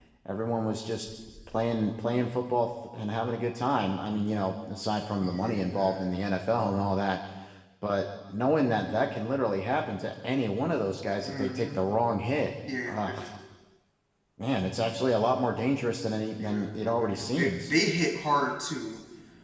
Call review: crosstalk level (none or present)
present